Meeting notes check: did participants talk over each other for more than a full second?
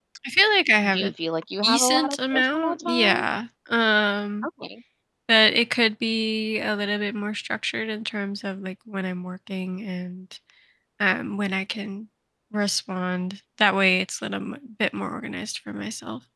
Yes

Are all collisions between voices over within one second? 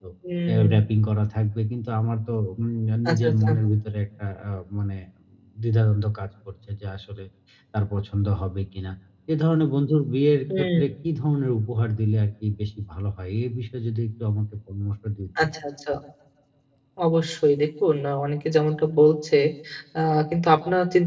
Yes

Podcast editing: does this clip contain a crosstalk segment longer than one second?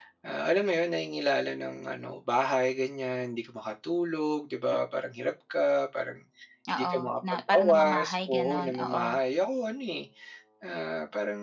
Yes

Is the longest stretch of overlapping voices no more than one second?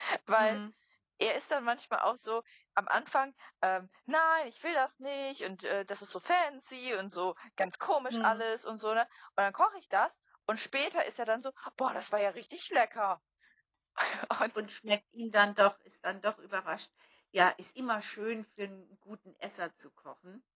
Yes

